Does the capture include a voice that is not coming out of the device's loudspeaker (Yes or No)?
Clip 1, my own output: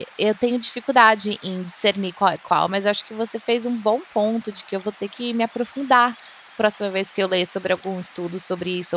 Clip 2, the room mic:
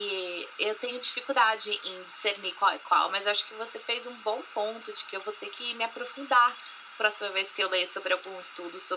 No